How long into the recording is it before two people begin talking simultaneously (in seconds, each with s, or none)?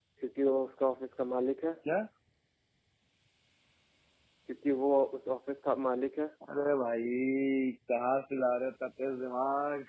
none